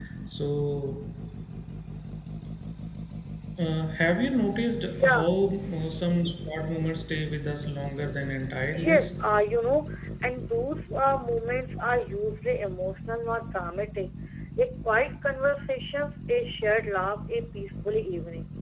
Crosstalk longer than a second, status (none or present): none